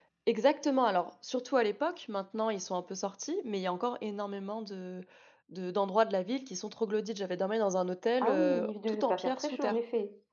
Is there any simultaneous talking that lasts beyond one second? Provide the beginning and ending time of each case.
8.2-9.8

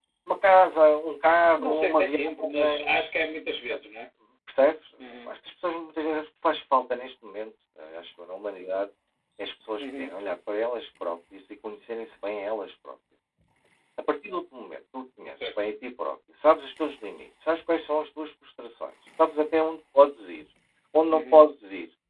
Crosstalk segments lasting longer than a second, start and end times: 1.5-3.0

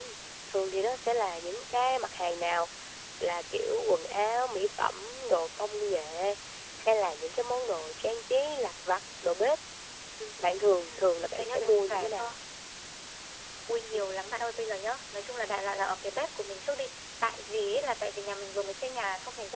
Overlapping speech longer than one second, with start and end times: 10.8-12.2

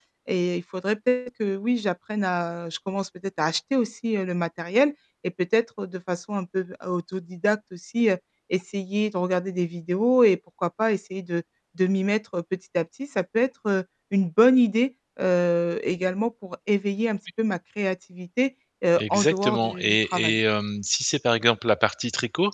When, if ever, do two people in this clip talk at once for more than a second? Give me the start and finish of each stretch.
19.0-20.4

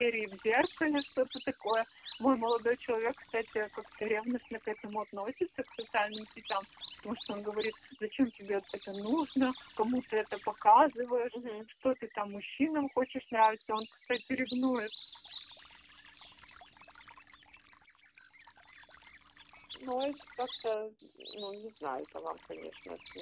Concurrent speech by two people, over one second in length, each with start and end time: none

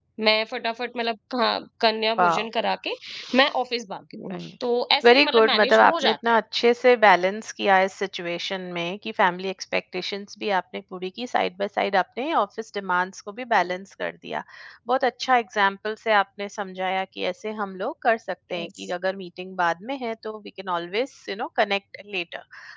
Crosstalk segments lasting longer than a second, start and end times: 5.1-6.4

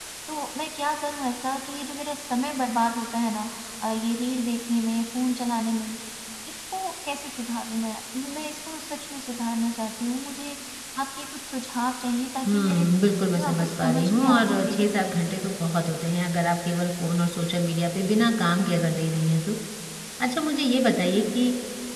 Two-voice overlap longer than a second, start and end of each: 13.4-14.8

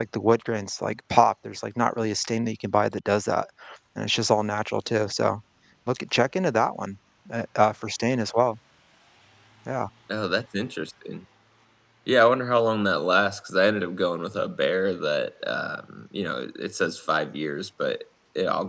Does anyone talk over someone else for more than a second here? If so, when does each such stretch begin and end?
none

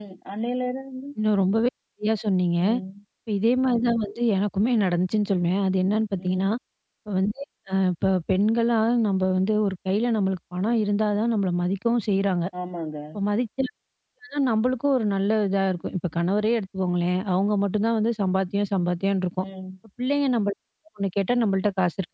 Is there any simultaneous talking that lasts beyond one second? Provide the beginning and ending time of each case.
none

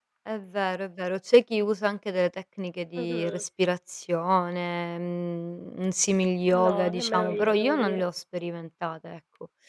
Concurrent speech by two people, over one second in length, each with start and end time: 6.5-8.0

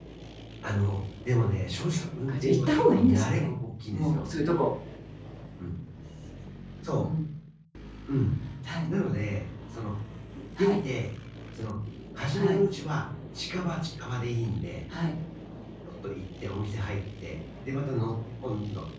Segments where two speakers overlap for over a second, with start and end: 1.9-3.5

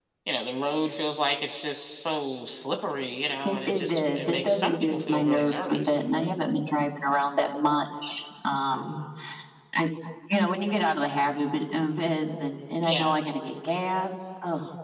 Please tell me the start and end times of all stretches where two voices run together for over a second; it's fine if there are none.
3.5-6.0

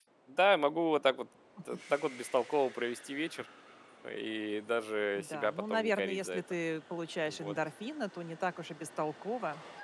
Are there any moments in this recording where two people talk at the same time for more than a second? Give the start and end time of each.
5.2-6.4

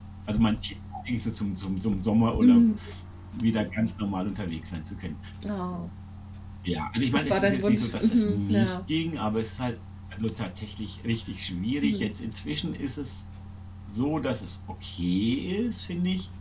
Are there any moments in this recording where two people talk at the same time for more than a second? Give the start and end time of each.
7.1-8.8

